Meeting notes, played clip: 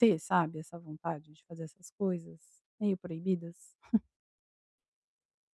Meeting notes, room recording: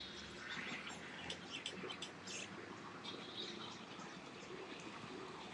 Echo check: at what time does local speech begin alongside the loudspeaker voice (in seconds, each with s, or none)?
none